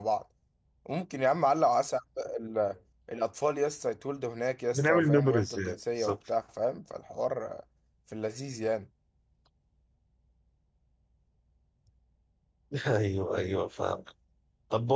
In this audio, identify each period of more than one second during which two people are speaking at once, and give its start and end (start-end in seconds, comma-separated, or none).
4.7-6.2